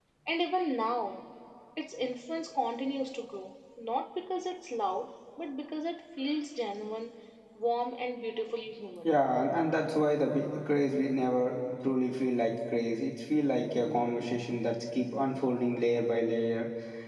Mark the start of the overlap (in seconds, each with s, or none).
none